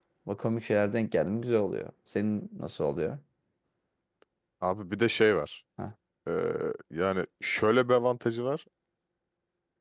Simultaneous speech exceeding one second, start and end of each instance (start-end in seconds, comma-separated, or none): none